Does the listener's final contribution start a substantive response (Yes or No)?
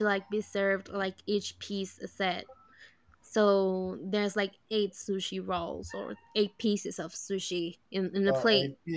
Yes